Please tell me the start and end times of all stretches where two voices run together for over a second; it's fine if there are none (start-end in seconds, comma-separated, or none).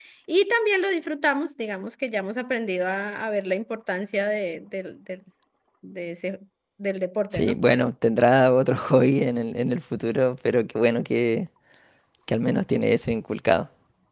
none